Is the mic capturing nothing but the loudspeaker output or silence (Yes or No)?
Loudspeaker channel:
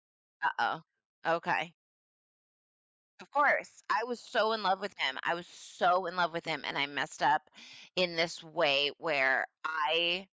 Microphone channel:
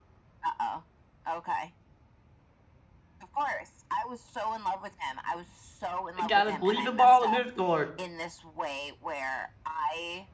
No